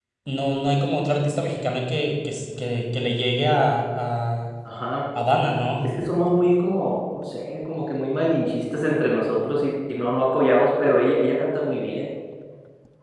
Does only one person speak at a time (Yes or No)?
Yes